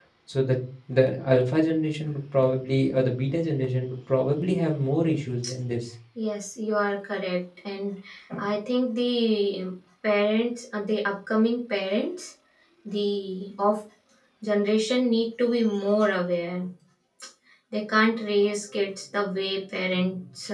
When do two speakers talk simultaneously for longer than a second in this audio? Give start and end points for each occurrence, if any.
none

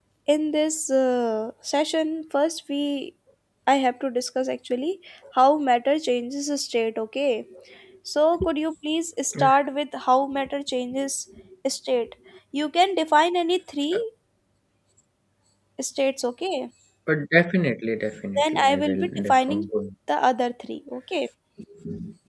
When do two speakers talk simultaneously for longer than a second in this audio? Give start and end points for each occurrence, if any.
18.4-19.7

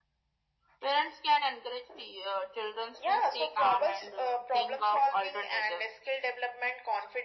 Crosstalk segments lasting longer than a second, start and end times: 3.1-5.9

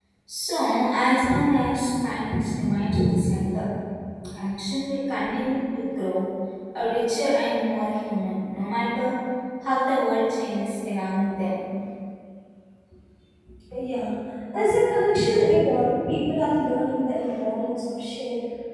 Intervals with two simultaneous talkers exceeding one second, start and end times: none

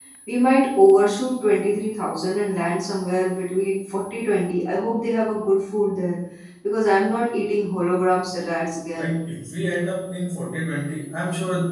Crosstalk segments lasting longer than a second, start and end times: none

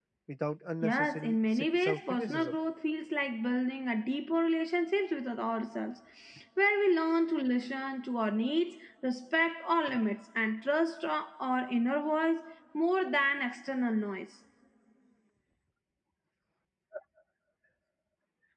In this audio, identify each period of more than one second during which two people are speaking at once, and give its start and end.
0.8-2.5

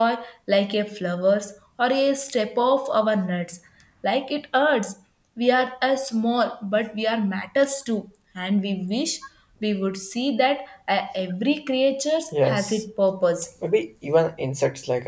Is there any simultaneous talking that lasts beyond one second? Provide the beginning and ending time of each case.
none

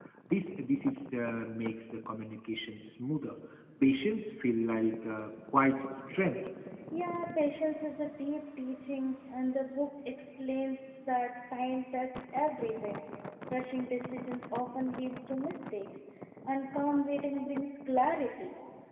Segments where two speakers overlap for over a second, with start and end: none

